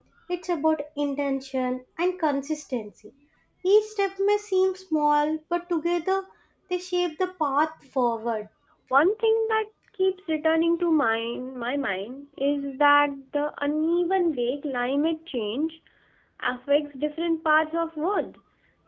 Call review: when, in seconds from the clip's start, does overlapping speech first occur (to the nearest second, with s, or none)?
none